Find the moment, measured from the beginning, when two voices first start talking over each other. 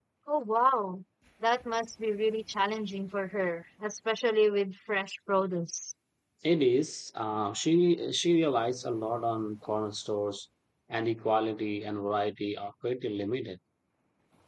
none

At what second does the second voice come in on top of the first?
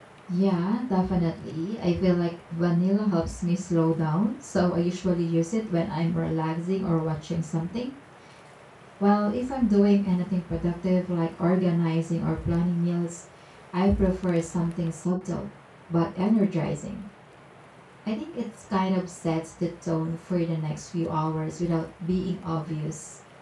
none

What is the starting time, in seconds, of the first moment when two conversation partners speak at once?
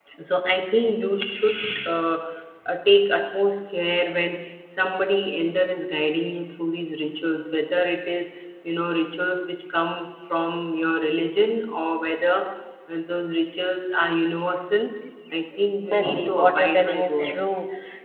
15.9 s

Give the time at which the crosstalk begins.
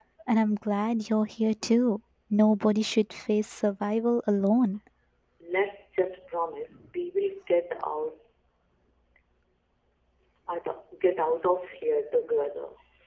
none

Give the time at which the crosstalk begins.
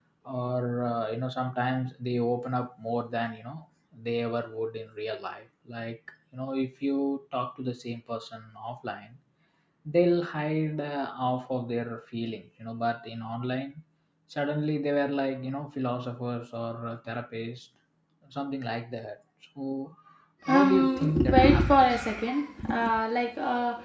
20.5 s

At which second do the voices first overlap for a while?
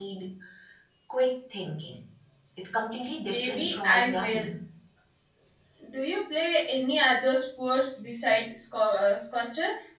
3.3 s

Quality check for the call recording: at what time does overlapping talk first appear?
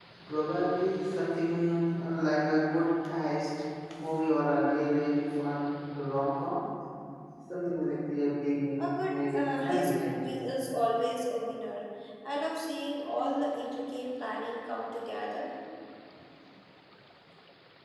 8.8 s

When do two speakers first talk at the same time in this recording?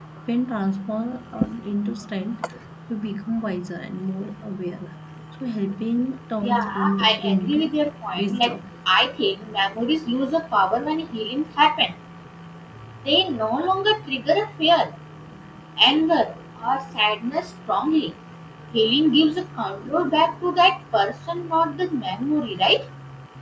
6.4 s

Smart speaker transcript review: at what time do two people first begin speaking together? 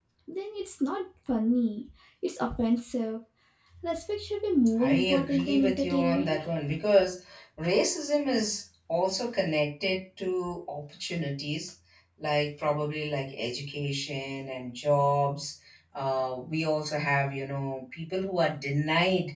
4.8 s

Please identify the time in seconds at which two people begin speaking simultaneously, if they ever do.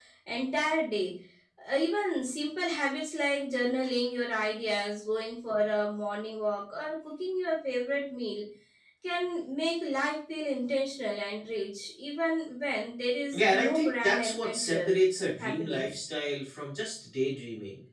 13.3 s

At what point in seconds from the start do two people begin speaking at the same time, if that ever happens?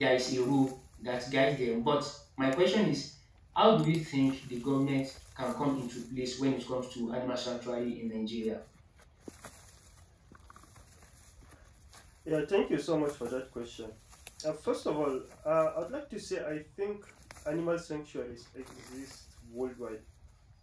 none

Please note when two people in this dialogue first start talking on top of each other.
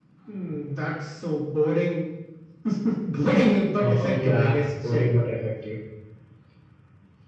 3.8 s

